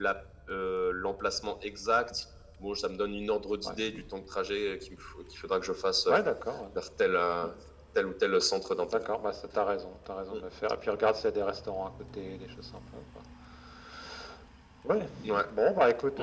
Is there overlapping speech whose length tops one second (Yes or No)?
No